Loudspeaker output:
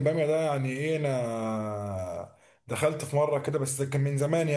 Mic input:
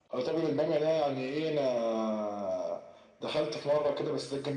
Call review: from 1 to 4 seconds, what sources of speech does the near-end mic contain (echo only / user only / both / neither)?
echo only